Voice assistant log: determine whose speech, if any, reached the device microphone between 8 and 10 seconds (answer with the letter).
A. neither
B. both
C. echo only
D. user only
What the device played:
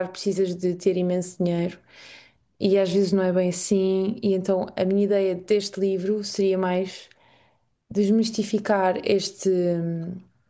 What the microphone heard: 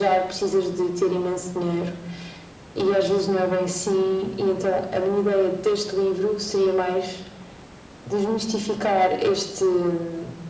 C